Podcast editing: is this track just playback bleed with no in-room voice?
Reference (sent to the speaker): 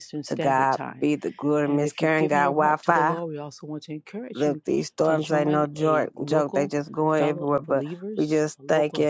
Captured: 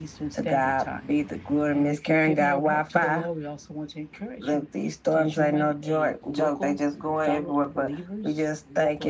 Yes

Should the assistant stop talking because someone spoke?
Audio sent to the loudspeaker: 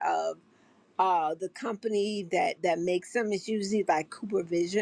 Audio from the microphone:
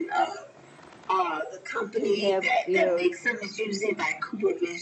Yes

